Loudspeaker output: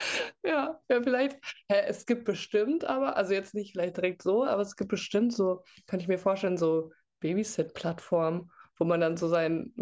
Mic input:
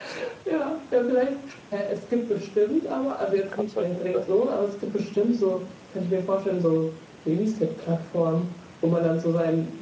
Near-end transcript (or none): Hm. Kann es halt echt sein.